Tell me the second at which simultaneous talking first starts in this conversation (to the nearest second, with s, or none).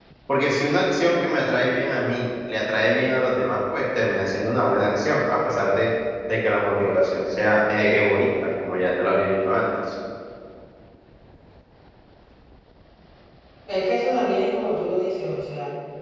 none